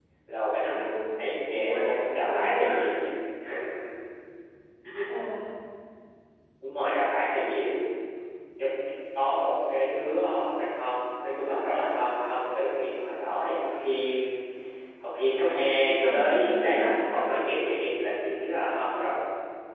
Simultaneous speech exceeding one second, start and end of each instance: 1.5-2.8, 15.8-17.2

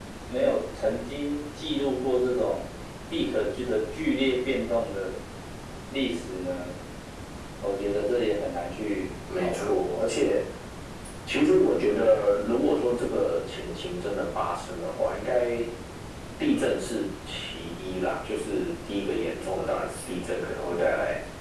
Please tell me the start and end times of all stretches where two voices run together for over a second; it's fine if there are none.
none

